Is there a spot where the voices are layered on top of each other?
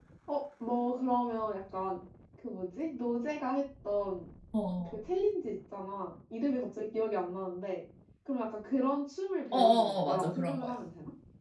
Yes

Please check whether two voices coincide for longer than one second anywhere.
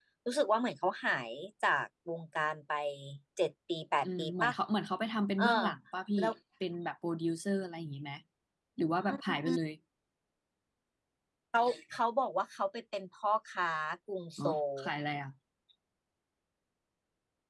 No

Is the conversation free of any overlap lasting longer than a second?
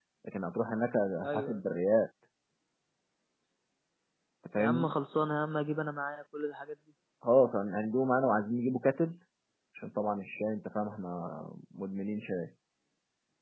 Yes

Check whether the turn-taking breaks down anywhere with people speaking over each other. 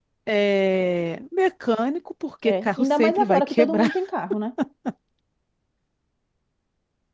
Yes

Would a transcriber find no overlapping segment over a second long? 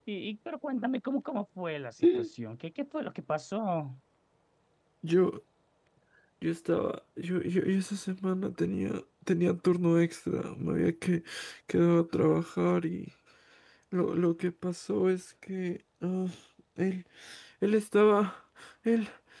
Yes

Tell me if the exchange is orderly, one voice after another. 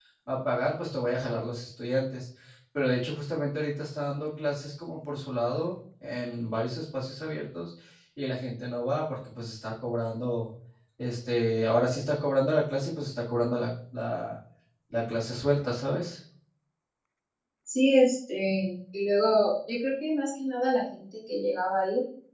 Yes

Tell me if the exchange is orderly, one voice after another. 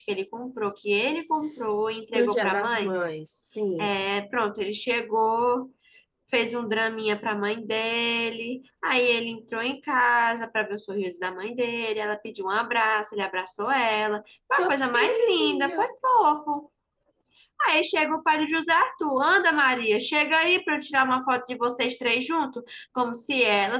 No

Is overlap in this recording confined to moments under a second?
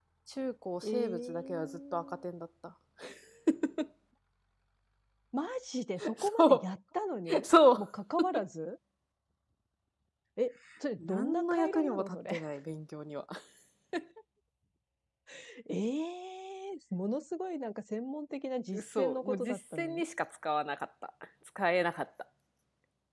No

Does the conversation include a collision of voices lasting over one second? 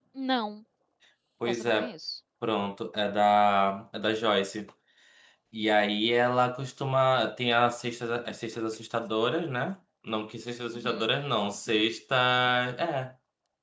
No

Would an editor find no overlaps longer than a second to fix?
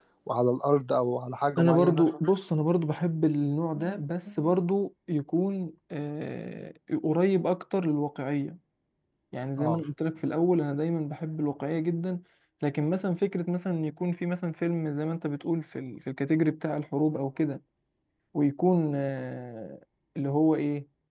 Yes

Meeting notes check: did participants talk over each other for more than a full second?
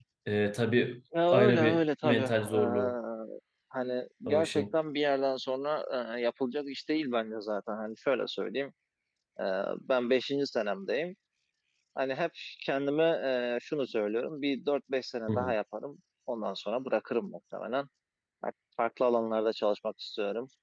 Yes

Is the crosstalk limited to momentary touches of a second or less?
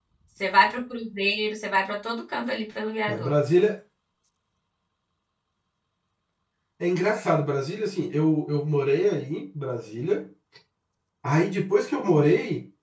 Yes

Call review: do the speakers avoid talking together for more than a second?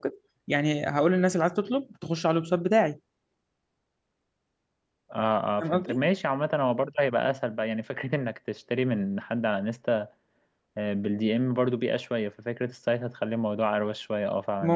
Yes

